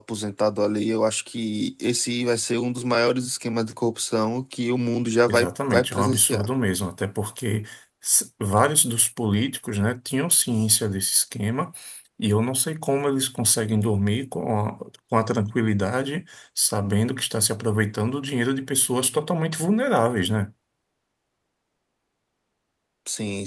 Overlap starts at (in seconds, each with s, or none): 5.3 s